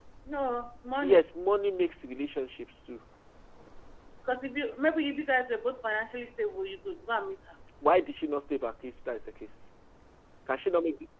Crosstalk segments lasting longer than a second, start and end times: none

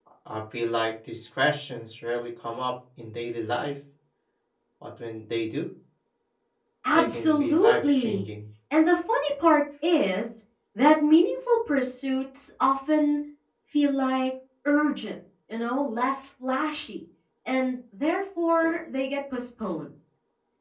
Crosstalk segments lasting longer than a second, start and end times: 6.9-8.2

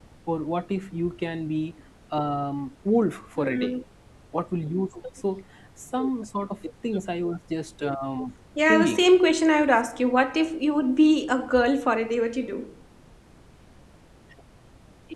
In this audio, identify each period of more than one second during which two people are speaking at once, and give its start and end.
none

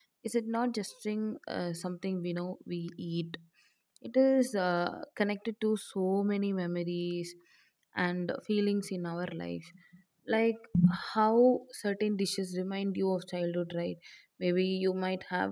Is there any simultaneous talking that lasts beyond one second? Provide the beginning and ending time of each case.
none

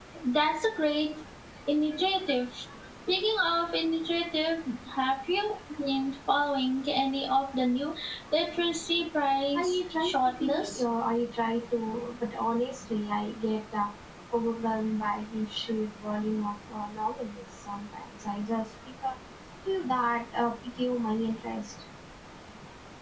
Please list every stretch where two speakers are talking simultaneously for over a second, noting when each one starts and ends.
9.5-10.8

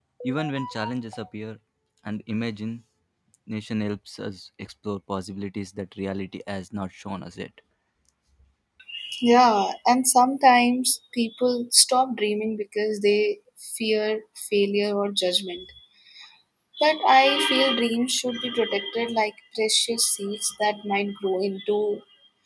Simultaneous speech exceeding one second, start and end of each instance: none

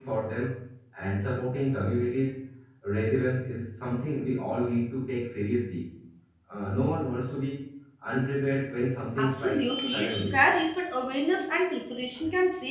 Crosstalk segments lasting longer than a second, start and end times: 9.2-10.4

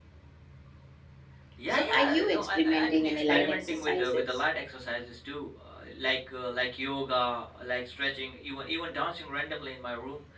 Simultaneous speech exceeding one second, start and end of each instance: 1.7-4.2

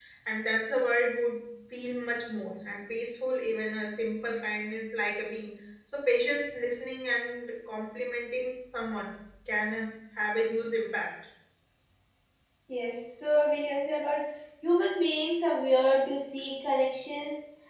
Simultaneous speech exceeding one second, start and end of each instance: none

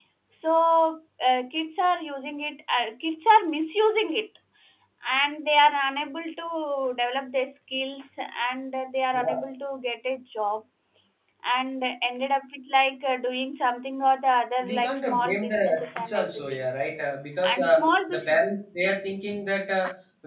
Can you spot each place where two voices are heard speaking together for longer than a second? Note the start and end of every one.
14.7-16.7

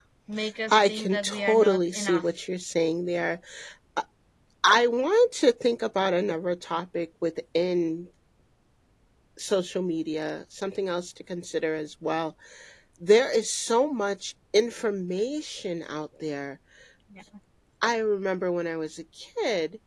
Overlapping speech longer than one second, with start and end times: 0.7-2.3

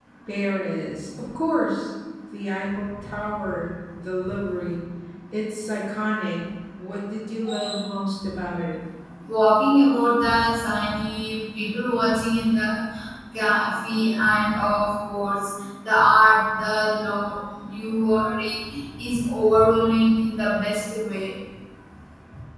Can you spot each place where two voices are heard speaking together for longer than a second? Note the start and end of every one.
none

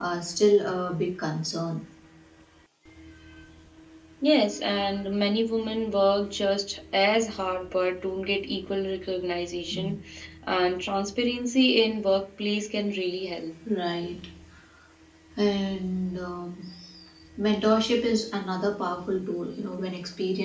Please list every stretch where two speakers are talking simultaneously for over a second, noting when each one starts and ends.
none

